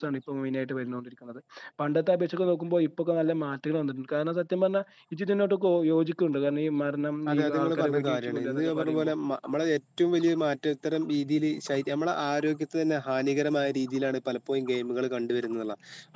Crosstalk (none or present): present